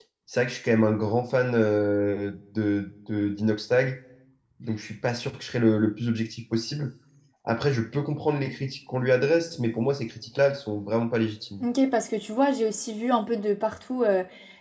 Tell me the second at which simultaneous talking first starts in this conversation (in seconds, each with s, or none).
none